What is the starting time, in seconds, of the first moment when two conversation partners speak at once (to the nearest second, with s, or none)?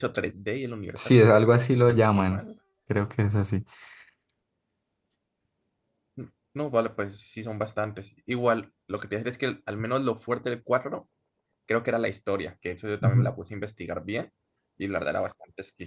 1 s